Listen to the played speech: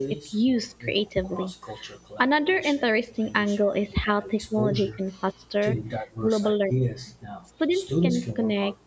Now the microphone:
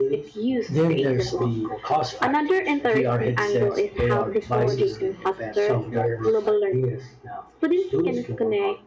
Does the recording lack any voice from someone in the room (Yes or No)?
No